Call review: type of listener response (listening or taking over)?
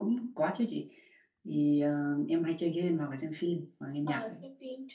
taking over